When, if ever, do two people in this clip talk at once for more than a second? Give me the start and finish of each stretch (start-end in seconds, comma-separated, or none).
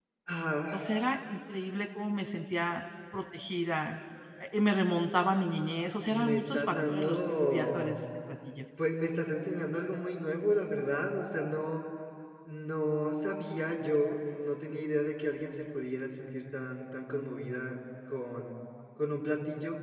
6.1-8.0